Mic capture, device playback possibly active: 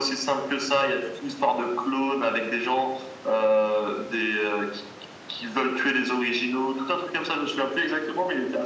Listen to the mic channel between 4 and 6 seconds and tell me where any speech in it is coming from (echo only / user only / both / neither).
echo only